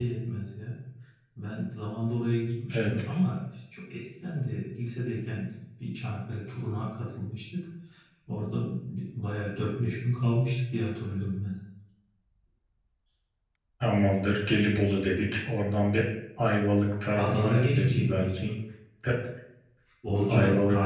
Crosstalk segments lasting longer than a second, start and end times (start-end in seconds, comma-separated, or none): 17.2-18.4